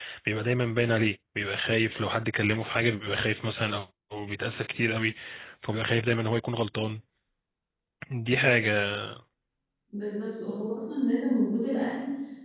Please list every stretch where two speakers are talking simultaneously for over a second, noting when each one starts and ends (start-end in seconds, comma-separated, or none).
none